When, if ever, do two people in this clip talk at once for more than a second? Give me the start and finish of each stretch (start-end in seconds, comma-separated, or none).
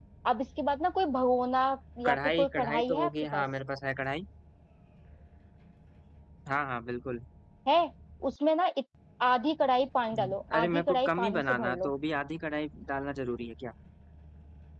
2.0-3.4, 10.2-11.9